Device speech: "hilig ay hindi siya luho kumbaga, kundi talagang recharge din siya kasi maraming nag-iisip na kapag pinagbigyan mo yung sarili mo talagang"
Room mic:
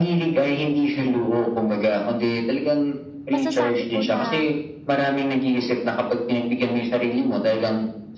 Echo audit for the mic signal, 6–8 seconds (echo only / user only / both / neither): echo only